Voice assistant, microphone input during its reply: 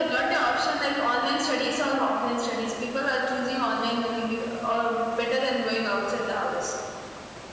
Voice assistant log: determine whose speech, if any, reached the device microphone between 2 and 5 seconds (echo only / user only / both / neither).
echo only